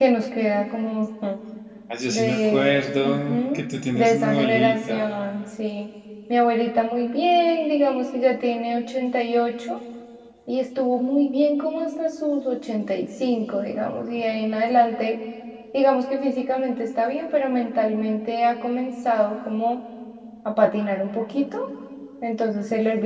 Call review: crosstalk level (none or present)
present